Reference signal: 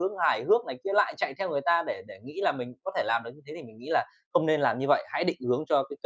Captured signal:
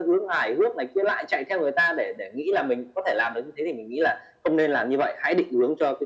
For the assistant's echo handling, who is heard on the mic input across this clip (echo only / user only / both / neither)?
echo only